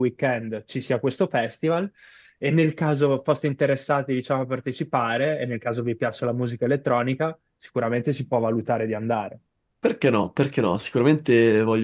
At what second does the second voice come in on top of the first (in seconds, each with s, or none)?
none